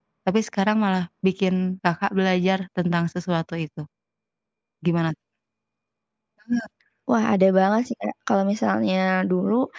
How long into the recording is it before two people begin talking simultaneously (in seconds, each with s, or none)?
none